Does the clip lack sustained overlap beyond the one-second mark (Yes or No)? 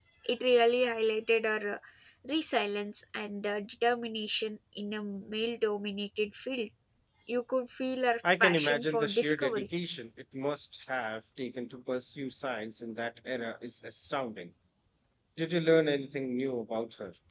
No